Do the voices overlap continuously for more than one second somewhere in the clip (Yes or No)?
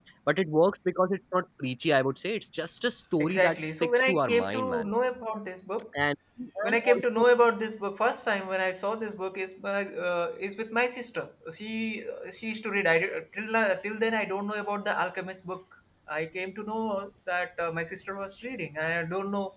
Yes